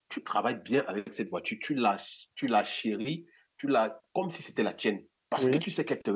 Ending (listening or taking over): listening